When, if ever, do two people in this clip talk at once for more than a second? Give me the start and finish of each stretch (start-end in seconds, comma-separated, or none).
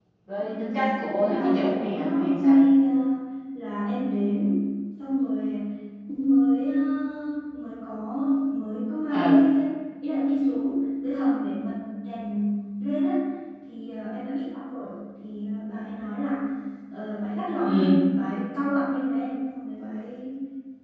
1.2-2.6